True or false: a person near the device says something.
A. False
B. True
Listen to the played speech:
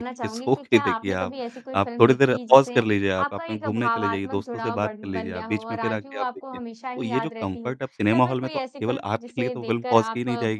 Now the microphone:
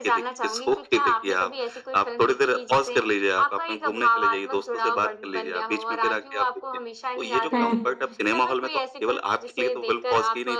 B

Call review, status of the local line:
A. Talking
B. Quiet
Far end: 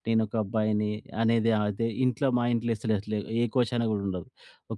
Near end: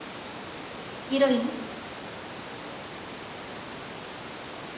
A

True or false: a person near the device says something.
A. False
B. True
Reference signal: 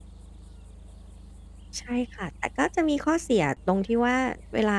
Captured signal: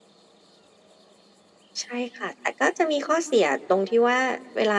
A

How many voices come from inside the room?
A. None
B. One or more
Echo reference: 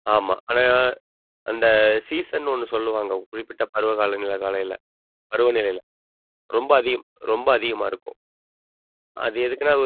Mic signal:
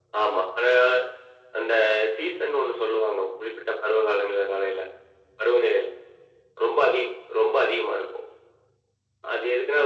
A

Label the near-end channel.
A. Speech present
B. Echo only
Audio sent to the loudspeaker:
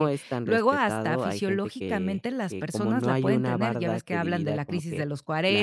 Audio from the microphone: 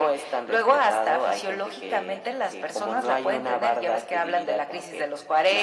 B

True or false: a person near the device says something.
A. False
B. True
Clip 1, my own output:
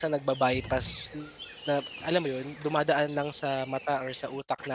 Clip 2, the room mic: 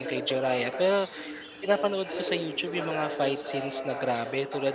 B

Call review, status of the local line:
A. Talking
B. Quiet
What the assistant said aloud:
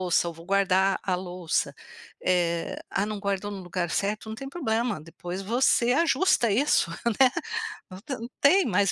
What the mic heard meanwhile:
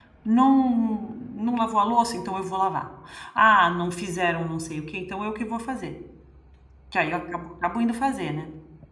A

